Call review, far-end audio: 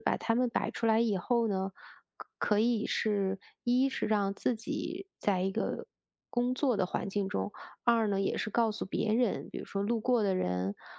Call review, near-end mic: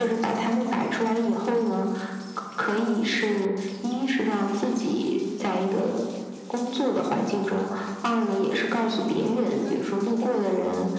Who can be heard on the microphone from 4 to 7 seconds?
echo only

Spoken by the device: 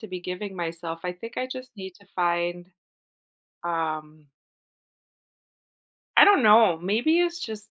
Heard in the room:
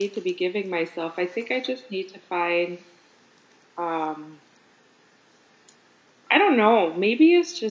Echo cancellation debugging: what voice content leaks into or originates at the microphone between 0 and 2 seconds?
echo only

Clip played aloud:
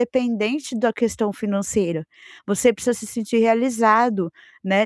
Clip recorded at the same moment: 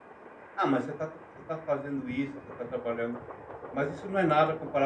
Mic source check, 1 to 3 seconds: user only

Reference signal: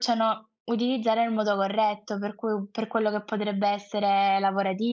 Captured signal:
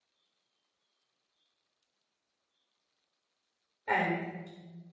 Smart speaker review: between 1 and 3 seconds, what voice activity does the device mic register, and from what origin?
neither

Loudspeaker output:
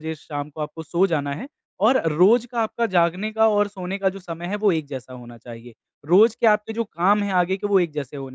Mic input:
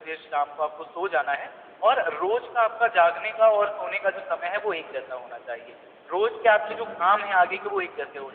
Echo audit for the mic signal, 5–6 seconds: echo only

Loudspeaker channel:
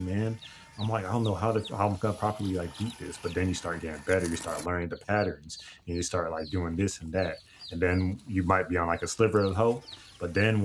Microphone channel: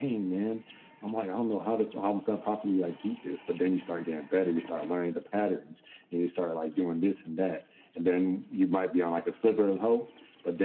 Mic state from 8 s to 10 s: echo only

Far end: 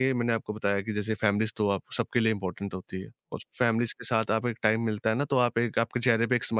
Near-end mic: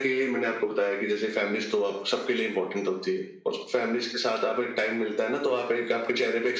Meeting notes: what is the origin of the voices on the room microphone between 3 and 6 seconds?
echo only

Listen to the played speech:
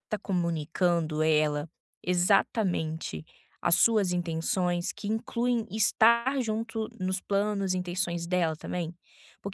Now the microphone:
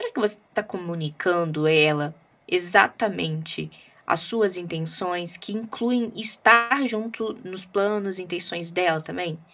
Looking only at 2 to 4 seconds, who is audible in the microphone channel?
echo only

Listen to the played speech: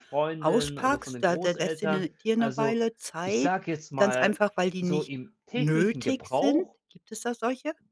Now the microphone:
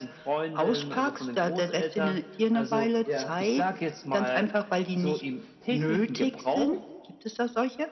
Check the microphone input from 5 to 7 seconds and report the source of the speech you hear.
echo only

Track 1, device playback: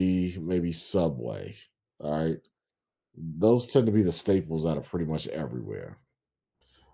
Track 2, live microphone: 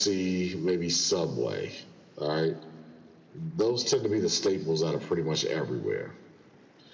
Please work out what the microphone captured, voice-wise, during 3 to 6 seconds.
echo only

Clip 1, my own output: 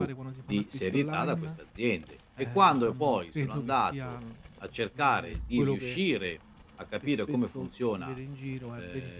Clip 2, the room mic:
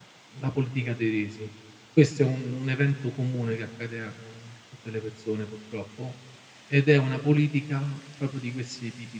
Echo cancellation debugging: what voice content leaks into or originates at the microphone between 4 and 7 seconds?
user only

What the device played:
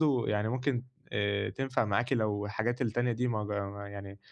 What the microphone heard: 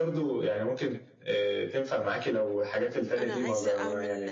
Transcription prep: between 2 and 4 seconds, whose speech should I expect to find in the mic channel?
both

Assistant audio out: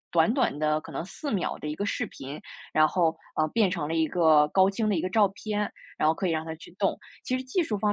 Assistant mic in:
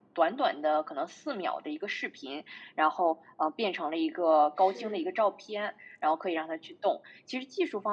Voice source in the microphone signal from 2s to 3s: echo only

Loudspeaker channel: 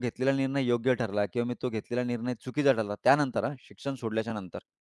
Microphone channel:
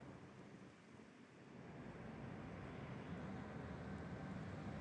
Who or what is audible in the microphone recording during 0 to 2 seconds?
neither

